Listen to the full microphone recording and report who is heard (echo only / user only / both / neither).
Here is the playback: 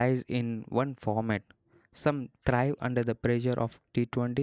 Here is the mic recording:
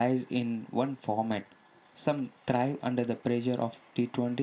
echo only